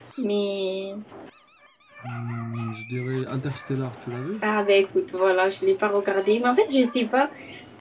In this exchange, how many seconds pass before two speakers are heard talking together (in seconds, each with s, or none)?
none